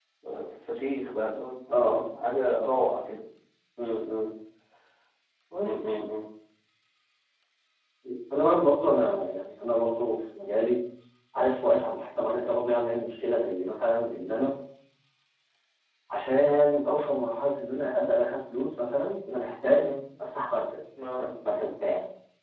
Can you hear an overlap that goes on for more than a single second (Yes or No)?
No